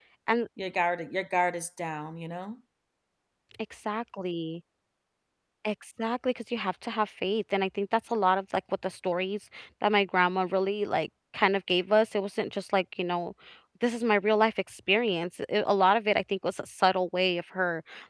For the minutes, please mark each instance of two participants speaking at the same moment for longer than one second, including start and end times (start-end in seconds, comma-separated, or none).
none